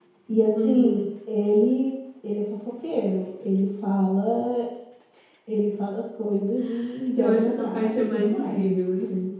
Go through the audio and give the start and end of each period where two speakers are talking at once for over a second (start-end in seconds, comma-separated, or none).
7.2-8.6